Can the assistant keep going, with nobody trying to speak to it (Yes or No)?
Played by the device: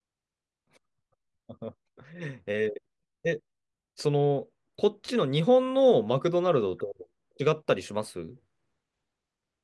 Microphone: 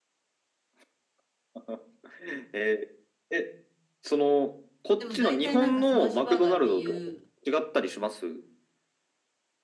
No